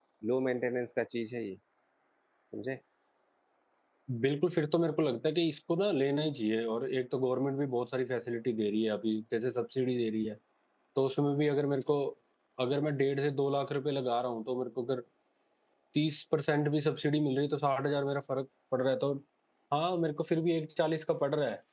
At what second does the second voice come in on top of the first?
none

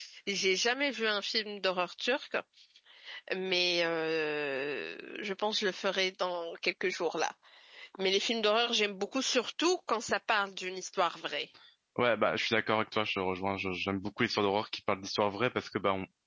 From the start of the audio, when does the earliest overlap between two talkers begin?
none

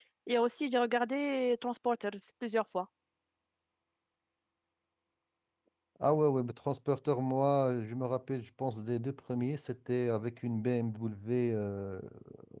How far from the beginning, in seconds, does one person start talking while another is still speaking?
none

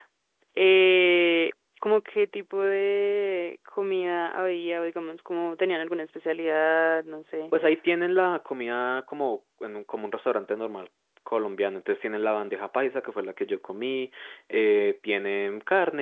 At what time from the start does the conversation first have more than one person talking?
none

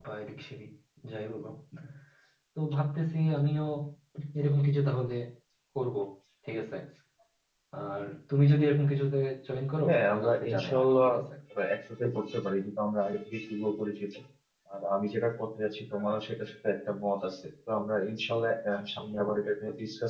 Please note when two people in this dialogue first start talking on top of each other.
9.8 s

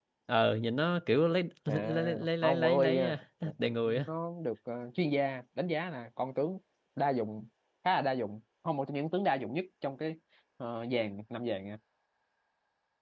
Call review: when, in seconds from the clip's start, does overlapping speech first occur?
1.7 s

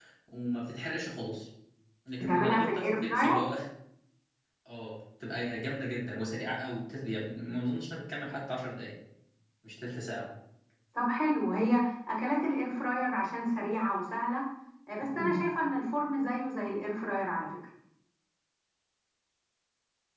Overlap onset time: 2.2 s

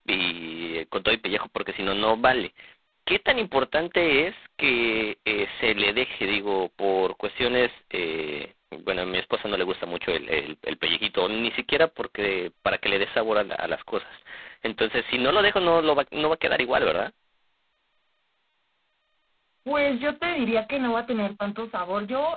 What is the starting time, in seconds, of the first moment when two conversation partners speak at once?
none

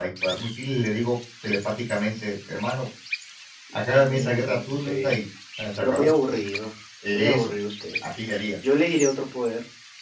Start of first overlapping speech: 3.9 s

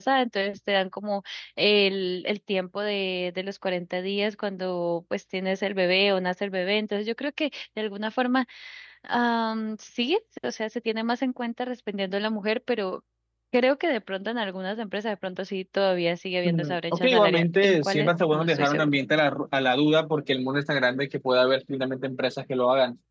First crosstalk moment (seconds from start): 16.4 s

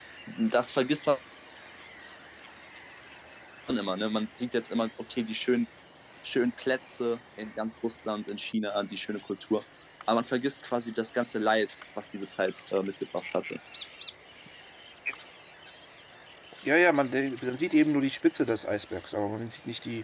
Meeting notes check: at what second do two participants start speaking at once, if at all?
none

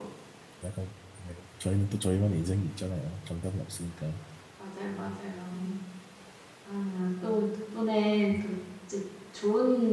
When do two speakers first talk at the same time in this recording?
none

